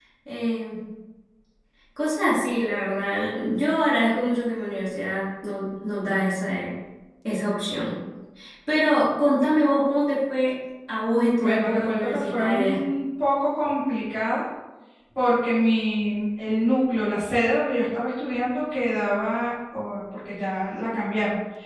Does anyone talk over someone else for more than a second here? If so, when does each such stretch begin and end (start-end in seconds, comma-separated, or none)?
11.4-12.8